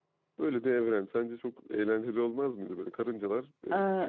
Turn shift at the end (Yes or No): No